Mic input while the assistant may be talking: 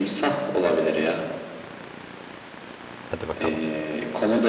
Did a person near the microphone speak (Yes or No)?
Yes